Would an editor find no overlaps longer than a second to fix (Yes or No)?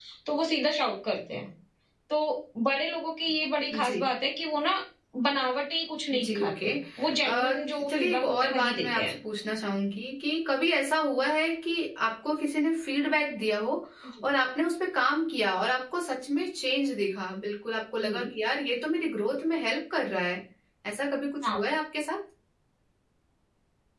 No